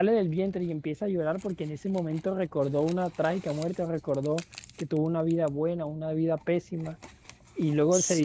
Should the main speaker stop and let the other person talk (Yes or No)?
No